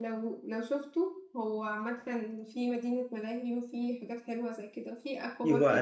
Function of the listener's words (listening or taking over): taking over